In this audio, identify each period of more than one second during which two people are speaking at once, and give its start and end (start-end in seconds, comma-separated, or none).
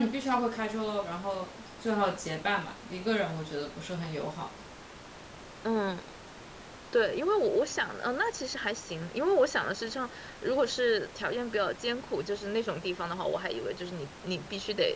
none